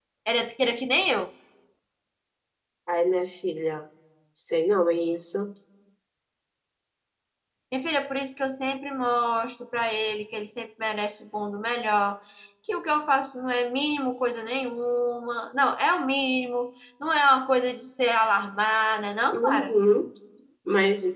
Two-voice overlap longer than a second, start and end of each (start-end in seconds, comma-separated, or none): none